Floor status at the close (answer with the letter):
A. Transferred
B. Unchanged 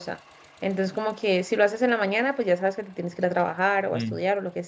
B